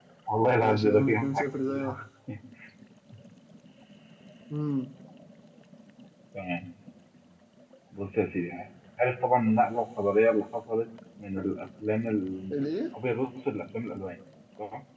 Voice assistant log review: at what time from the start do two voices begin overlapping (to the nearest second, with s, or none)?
1 s